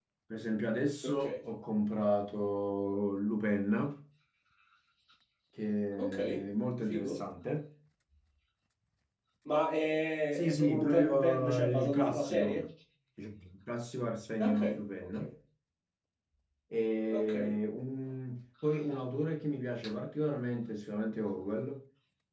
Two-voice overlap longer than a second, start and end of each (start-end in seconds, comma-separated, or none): 10.3-12.6